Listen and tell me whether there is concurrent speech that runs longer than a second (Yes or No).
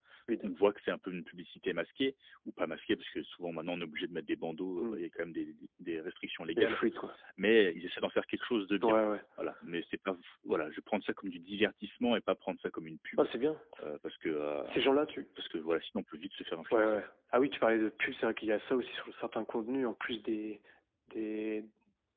No